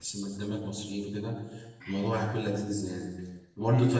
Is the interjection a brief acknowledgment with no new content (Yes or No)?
Yes